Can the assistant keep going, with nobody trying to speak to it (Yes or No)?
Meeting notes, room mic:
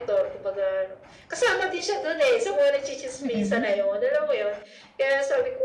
No